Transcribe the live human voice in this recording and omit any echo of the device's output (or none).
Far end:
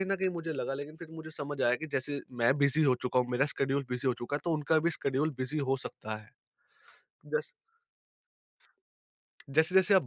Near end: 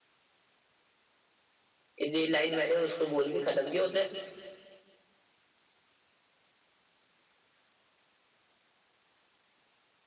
इस- ये लाइन मैंने उसको बोल के खत्म किया, उसने